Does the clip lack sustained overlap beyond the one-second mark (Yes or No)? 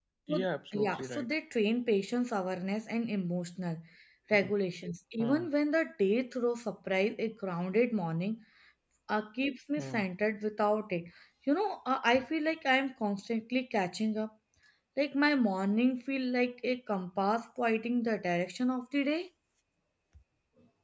Yes